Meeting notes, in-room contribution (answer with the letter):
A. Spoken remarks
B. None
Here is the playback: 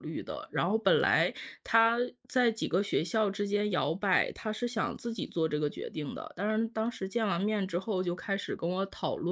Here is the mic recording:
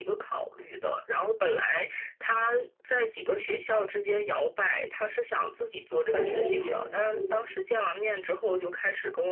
A